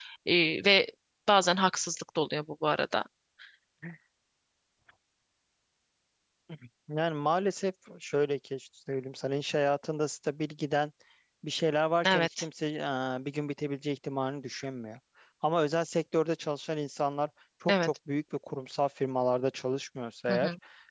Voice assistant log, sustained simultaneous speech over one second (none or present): none